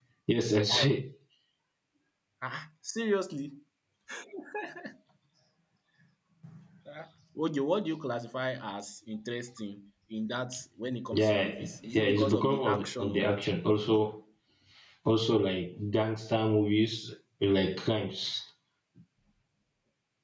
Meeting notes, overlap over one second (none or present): present